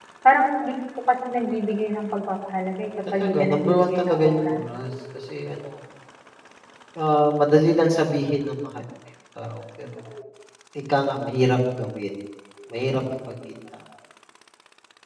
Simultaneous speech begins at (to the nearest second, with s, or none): 3 s